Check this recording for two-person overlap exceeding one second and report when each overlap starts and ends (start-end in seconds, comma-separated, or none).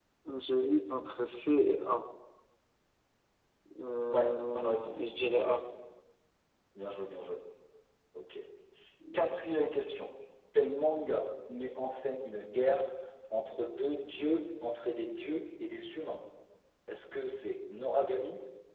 4.1-5.6